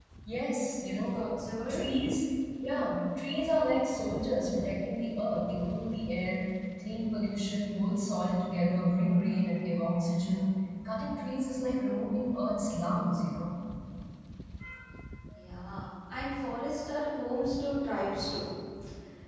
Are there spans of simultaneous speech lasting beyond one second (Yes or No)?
No